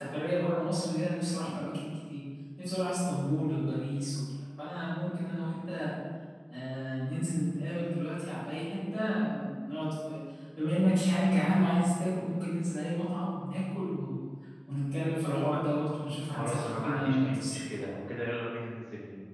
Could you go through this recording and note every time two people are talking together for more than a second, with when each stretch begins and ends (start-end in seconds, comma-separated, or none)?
16.4-17.8